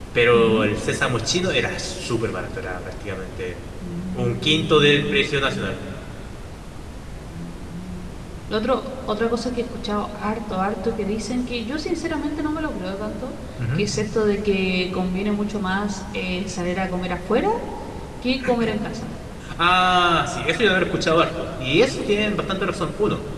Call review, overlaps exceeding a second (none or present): present